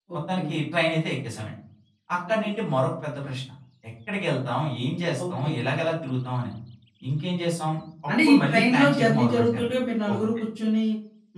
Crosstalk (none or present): present